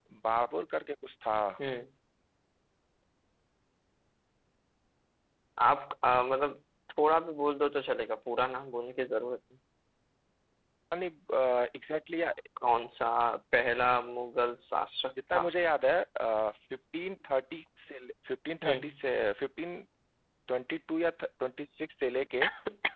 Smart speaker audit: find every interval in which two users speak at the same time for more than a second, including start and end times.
none

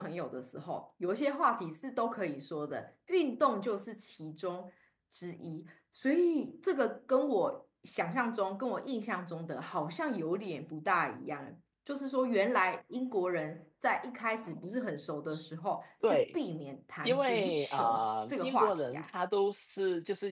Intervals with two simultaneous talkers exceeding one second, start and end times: 17.0-19.1

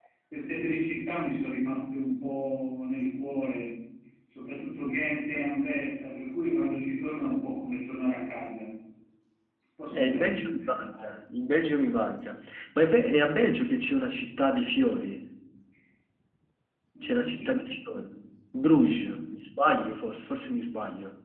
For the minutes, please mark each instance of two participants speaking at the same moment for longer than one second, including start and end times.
none

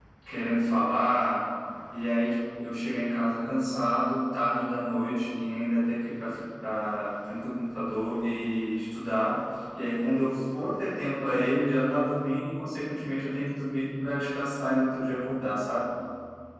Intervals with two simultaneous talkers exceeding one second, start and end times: none

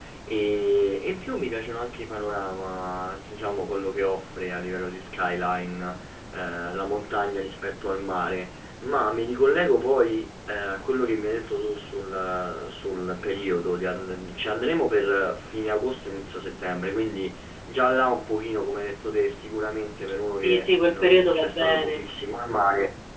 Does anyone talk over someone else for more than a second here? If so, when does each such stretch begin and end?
20.3-22.0

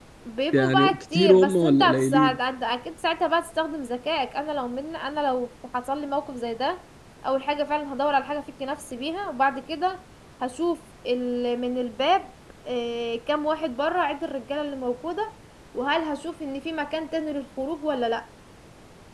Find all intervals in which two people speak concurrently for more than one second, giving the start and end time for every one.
0.5-2.4

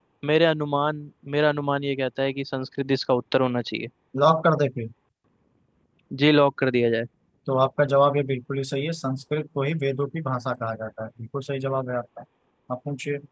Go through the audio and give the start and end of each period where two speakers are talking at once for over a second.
none

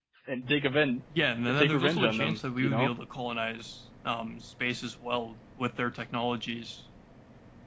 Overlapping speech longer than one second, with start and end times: 1.6-2.9

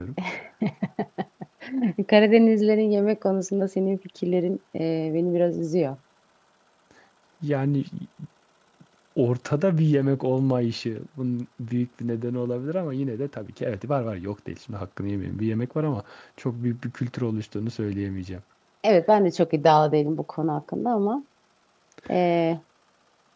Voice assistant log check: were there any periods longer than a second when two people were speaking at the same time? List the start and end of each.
none

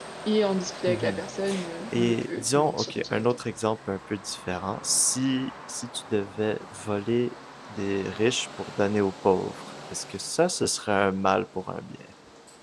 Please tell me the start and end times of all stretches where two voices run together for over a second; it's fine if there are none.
1.9-3.4

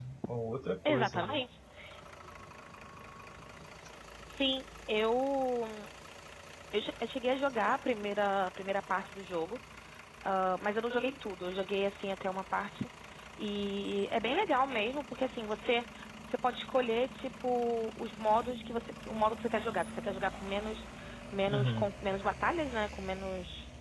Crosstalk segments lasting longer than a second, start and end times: none

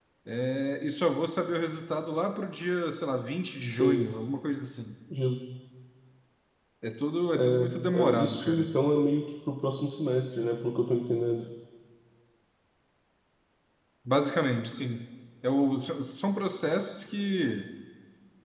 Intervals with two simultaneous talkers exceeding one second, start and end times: 7.3-8.7

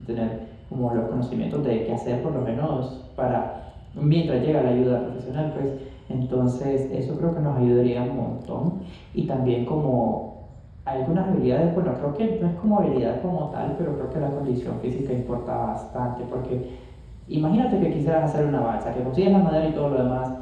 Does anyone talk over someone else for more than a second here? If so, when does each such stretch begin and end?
none

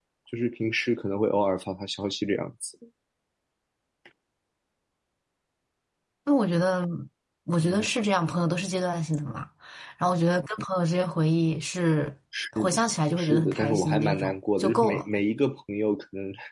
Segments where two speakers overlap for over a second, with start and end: 13.2-15.1

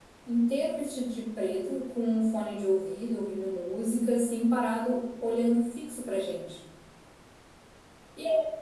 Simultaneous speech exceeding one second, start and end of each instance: none

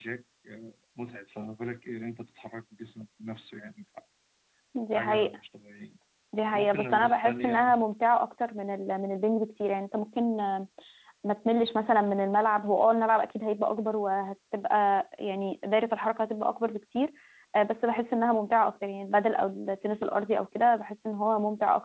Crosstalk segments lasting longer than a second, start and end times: 6.5-7.8

